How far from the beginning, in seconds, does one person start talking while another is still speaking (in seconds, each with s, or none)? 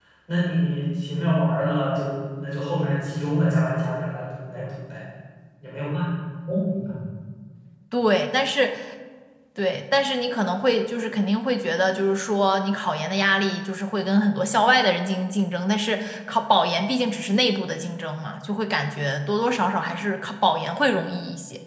none